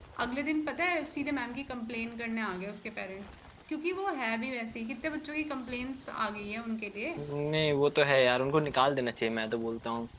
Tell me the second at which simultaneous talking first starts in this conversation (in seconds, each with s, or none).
none